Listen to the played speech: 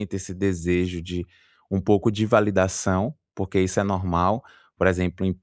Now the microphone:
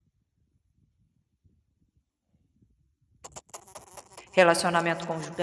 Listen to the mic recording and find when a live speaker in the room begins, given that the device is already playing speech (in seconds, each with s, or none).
4.3 s